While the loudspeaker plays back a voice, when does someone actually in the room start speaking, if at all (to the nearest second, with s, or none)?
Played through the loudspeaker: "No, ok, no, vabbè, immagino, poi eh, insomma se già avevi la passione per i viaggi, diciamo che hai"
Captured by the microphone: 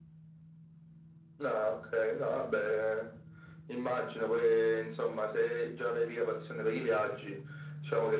none